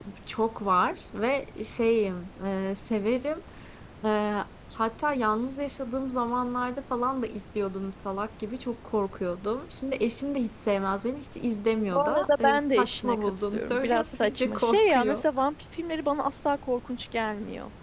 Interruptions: present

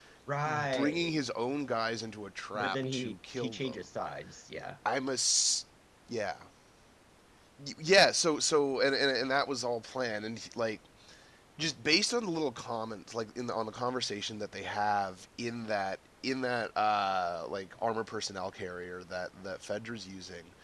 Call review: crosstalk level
present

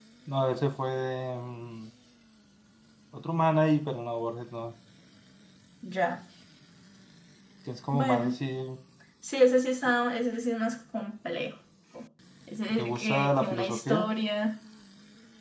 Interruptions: present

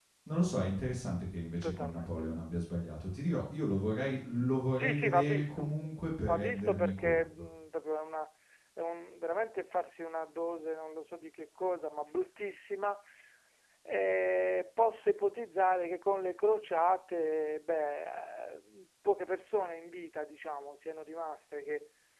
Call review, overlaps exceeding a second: present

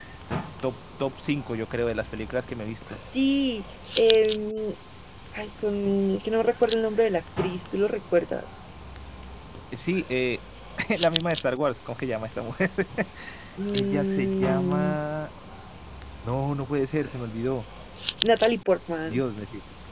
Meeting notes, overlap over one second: present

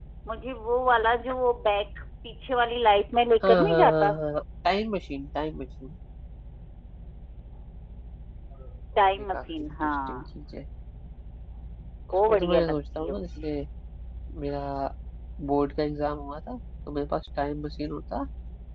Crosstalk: present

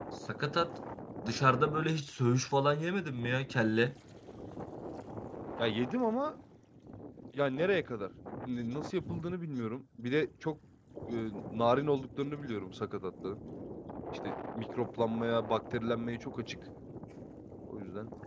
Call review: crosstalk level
none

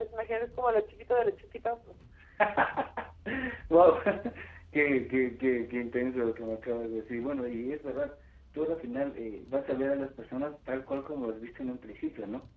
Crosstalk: none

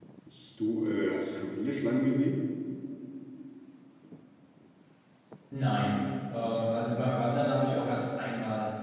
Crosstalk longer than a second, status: none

